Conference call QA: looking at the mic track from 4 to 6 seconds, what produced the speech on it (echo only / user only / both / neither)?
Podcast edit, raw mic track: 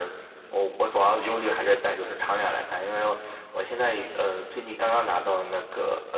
echo only